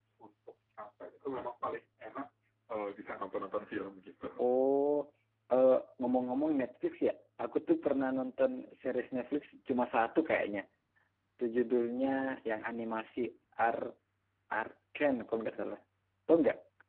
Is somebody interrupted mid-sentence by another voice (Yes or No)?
No